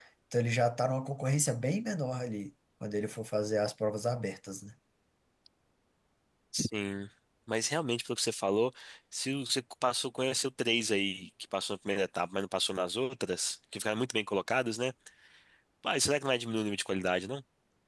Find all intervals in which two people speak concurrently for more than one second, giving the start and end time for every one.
none

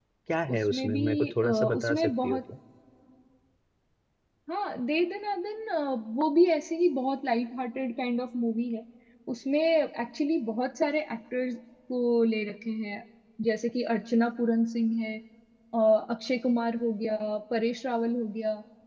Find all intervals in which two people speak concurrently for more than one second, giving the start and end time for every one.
0.6-2.4

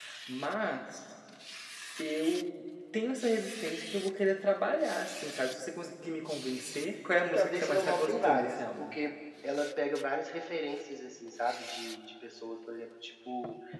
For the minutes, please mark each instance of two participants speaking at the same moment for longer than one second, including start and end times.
7.2-9.0

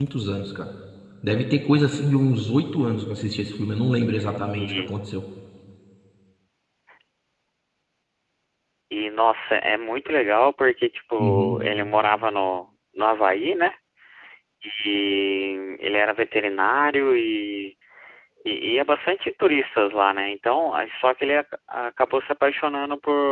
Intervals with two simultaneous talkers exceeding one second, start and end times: none

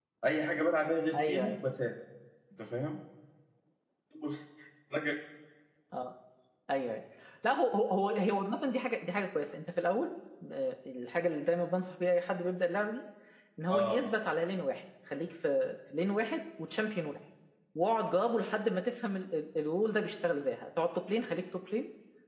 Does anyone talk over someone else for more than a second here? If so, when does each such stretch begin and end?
none

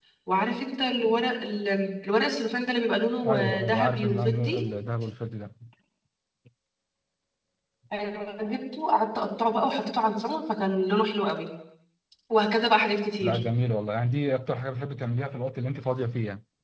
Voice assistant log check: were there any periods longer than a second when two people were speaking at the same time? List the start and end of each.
3.3-4.6

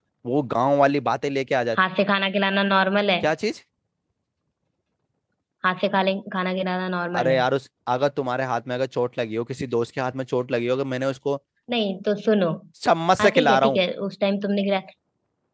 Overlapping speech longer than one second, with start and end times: none

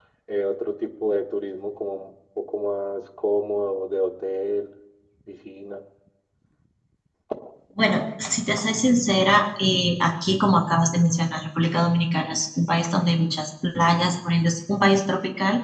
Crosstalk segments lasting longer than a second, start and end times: none

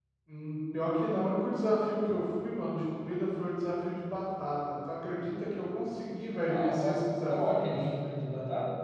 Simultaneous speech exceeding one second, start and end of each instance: 6.5-7.9

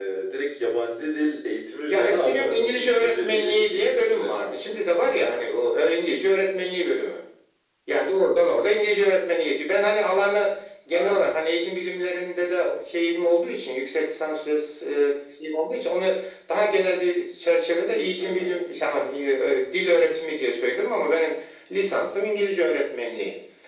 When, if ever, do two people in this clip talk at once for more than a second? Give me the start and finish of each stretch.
1.9-5.4

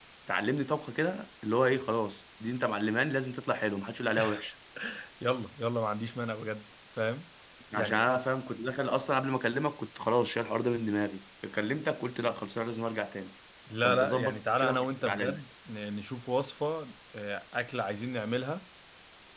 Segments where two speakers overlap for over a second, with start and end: 13.8-15.4

